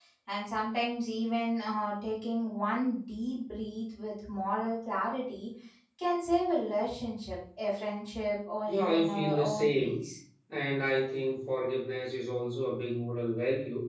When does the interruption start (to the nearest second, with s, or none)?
9 s